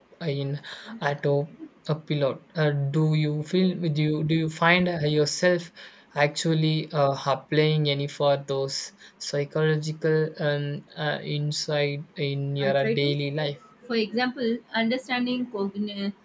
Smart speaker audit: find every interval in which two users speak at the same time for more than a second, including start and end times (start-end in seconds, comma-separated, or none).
none